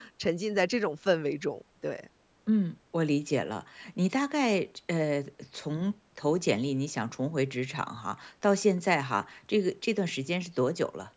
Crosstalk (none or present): none